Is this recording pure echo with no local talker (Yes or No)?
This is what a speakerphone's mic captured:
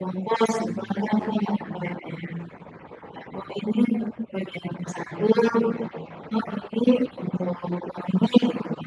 No